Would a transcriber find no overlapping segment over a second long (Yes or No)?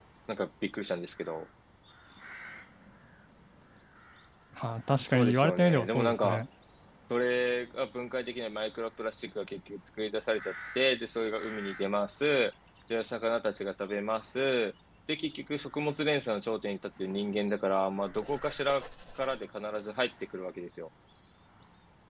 No